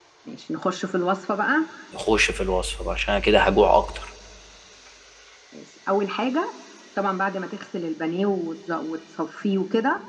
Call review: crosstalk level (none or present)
none